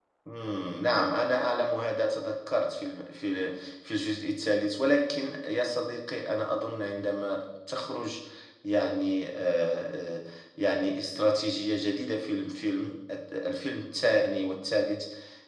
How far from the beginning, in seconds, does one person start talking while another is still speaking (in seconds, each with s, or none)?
none